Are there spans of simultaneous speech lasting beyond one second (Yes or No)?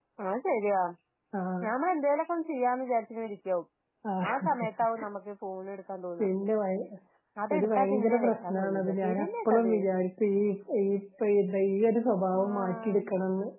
Yes